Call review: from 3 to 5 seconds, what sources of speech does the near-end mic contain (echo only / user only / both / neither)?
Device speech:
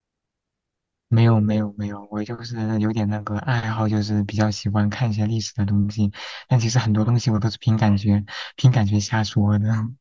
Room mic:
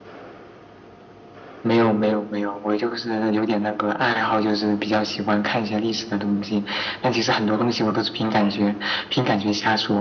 echo only